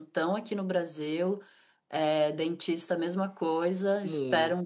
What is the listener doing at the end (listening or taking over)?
listening